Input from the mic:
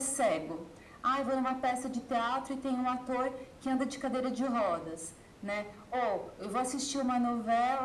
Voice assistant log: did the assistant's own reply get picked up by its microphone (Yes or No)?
Yes